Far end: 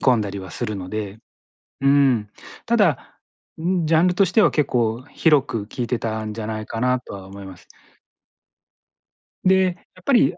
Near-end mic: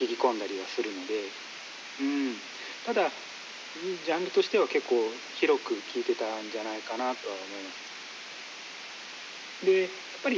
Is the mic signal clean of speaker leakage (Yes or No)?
No